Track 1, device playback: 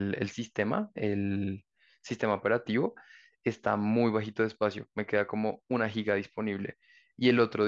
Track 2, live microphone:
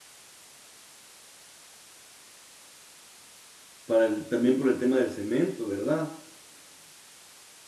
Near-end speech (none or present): present